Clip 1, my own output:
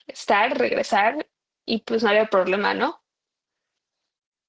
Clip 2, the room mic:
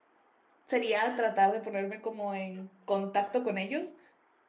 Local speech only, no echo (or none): Sería tratar de ponerme como en contacto con ellos